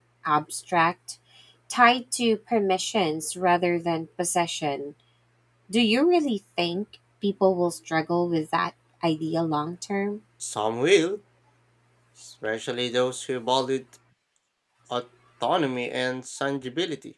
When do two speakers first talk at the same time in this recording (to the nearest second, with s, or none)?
none